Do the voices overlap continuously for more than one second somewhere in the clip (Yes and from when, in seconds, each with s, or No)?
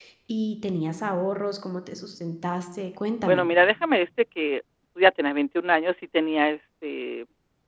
No